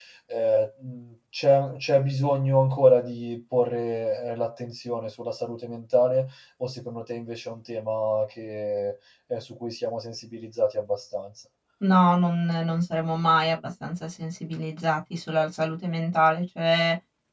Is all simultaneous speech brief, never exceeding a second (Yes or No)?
Yes